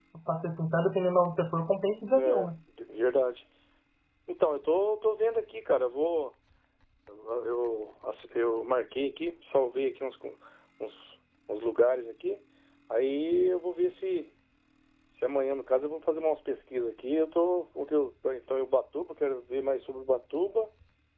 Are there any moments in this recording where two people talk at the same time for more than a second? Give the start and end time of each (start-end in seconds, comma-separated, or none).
none